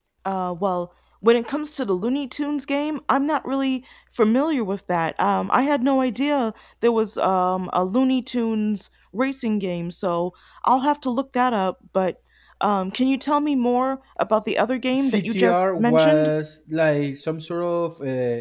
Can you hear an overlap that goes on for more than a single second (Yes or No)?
Yes